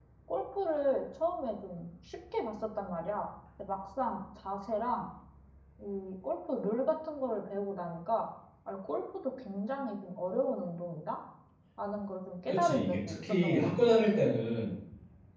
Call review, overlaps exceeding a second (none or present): present